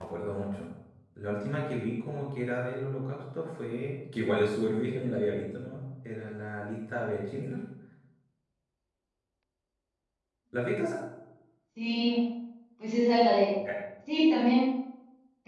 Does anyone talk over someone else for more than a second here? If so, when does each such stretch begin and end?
none

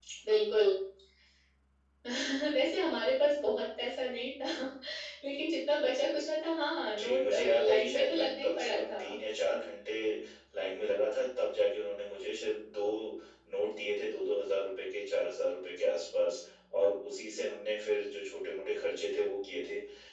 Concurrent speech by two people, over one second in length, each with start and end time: 7.0-9.0

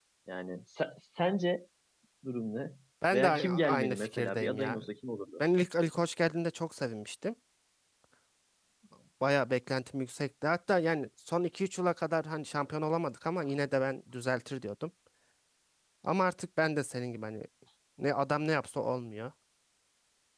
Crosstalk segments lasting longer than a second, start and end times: 3.1-4.8

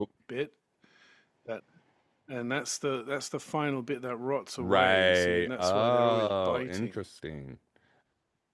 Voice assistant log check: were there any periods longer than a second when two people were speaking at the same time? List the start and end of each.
4.6-6.9

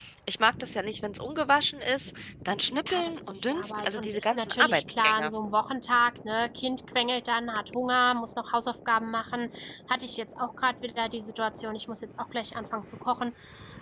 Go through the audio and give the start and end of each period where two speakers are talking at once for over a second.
2.9-5.3

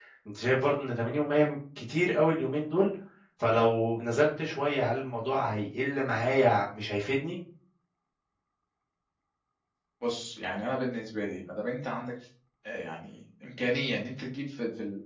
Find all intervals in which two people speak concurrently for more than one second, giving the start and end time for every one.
none

